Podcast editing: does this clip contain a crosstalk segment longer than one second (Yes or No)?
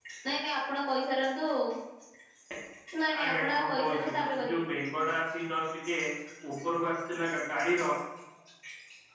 Yes